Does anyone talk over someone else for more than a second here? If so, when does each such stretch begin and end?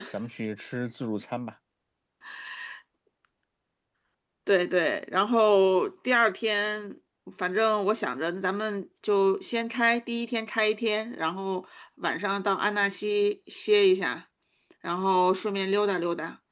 none

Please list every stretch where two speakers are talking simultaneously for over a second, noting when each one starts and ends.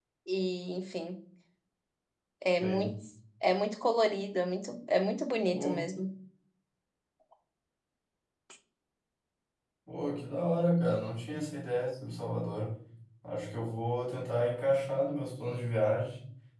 none

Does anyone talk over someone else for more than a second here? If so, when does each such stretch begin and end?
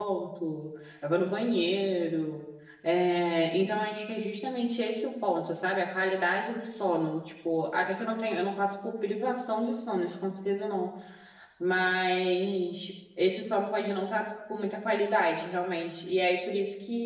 none

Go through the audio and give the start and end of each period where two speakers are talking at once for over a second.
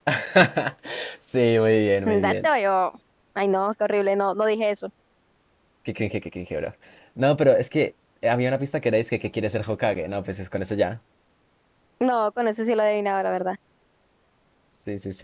none

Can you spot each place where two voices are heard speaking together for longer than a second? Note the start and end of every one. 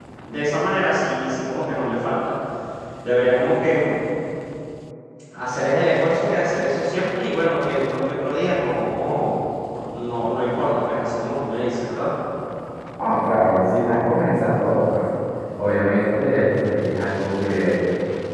none

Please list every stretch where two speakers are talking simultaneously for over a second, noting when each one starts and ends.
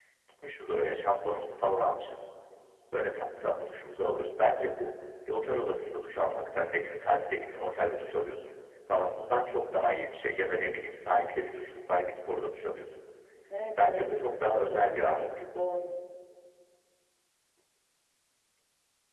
13.8-15.3

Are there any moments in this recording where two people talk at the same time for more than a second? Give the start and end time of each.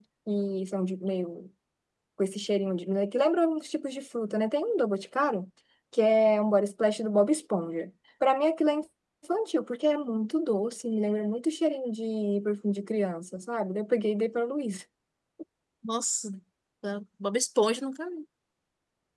none

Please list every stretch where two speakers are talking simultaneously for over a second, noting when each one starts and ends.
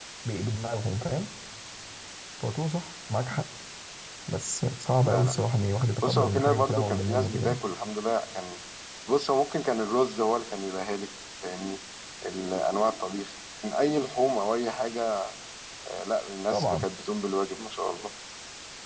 6.0-7.6

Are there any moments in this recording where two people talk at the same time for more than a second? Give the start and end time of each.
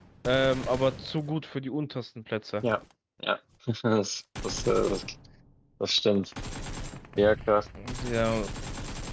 none

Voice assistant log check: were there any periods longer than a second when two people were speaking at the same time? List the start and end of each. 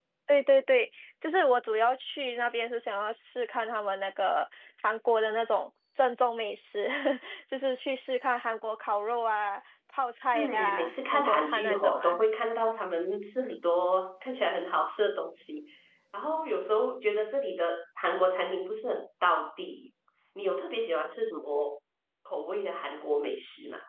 10.3-12.2

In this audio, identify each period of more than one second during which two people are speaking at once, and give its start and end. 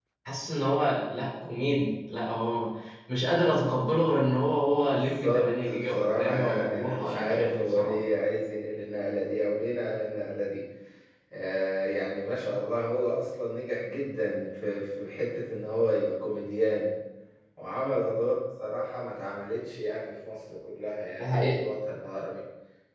4.8-7.9

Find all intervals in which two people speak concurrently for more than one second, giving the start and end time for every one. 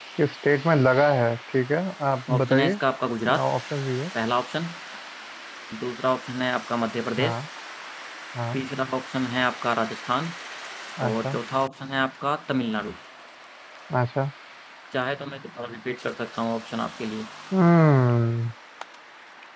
none

